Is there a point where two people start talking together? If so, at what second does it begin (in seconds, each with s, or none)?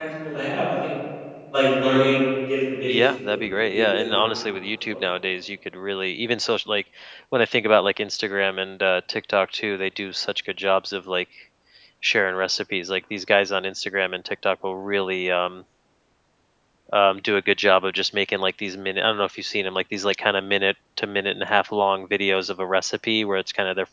2.9 s